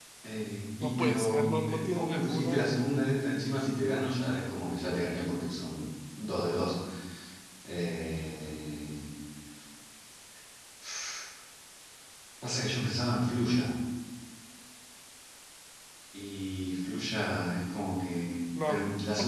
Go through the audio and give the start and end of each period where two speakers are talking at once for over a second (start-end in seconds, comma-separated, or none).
0.8-2.7